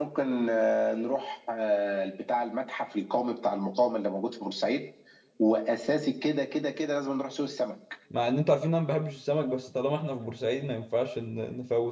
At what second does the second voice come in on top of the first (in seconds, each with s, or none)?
none